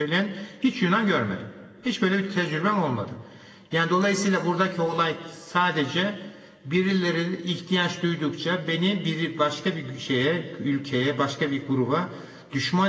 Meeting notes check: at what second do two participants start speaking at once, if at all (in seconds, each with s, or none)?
none